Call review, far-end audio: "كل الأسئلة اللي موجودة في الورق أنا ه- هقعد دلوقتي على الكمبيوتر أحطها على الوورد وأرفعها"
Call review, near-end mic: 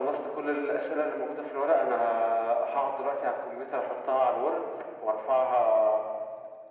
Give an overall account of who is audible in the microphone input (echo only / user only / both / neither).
echo only